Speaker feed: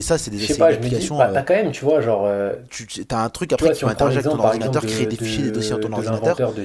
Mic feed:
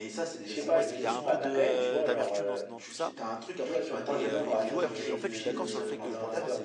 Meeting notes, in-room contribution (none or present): present